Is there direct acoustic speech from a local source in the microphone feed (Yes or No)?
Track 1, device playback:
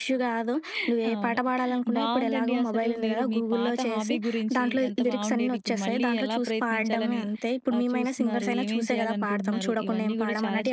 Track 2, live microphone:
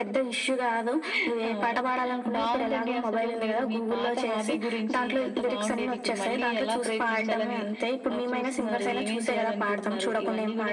No